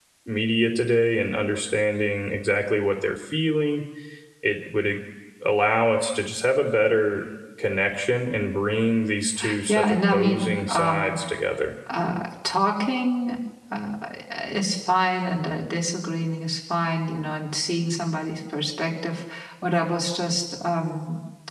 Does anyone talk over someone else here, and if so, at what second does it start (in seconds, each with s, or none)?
9.7 s